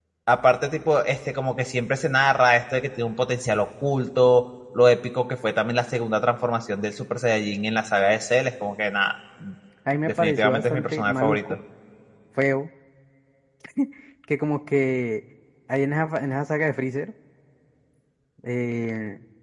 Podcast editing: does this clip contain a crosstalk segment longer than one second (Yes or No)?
Yes